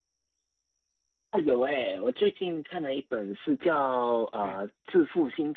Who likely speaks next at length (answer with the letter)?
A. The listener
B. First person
B